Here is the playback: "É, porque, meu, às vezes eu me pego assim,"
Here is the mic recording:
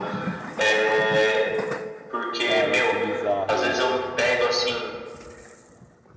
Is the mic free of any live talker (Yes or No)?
No